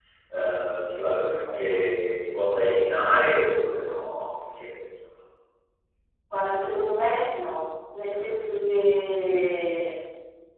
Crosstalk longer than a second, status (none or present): none